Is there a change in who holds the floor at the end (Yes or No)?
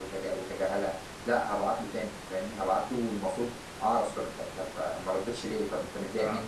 No